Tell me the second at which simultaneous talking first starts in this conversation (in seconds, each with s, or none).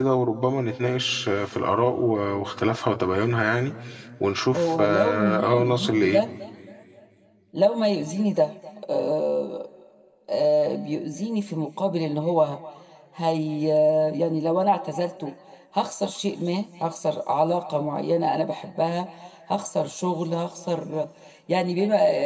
4.6 s